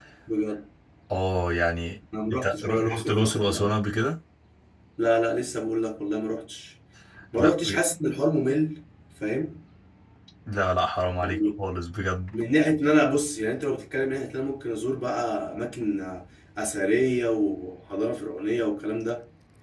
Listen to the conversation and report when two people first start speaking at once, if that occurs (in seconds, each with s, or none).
2.3 s